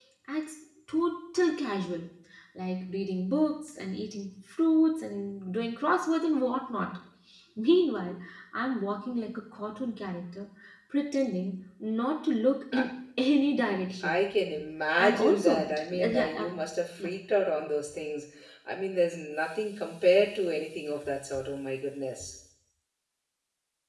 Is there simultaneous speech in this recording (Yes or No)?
Yes